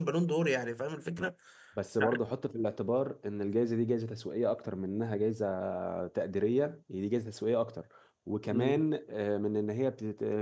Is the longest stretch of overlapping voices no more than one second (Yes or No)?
Yes